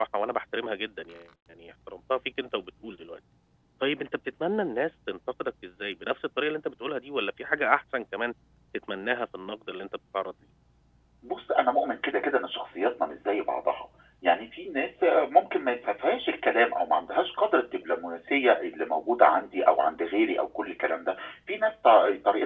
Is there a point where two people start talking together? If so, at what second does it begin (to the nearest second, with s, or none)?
none